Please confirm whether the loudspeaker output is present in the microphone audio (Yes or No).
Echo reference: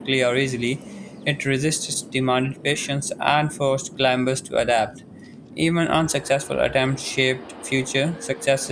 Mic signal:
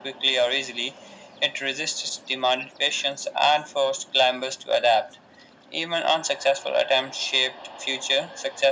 Yes